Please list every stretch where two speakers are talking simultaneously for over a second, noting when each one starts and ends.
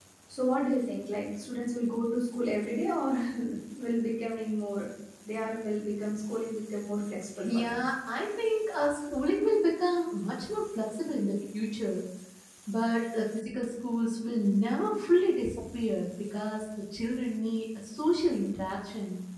none

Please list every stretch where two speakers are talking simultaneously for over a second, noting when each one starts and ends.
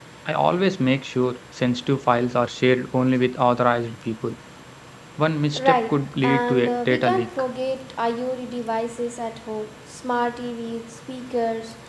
5.5-7.3

